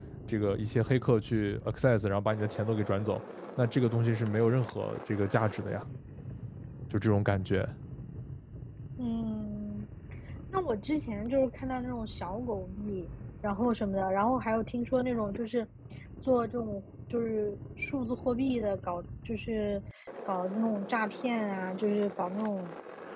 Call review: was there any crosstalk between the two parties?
No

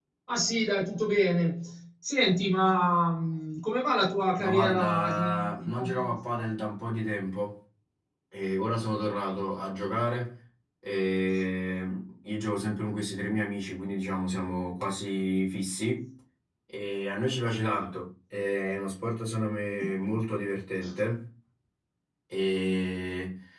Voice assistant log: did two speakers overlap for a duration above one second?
Yes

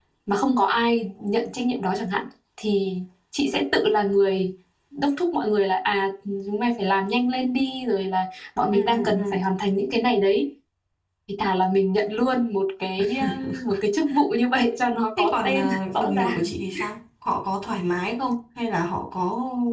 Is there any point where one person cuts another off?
Yes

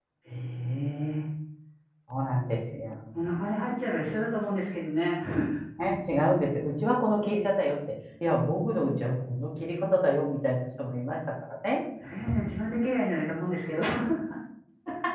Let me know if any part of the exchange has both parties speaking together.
No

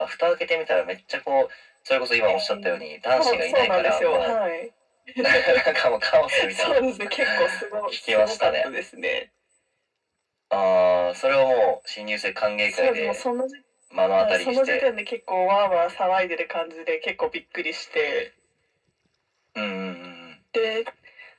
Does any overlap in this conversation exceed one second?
Yes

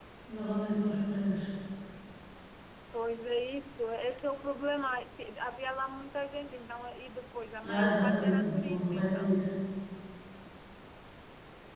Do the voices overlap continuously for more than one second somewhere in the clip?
Yes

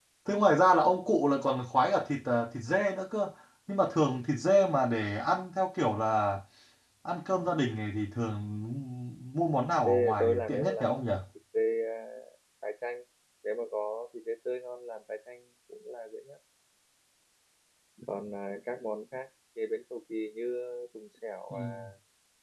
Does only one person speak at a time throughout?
No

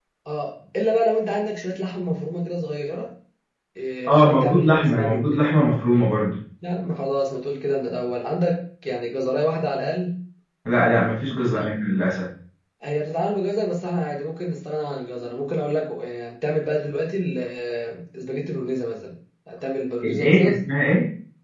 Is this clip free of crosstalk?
No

